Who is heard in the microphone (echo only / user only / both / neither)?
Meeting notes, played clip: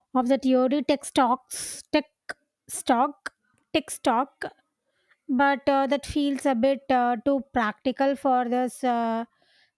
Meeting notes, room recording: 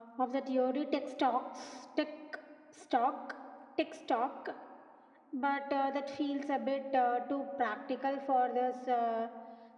echo only